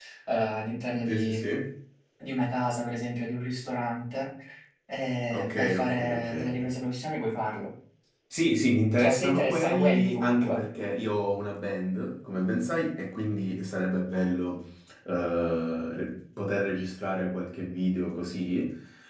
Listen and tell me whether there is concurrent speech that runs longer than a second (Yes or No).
Yes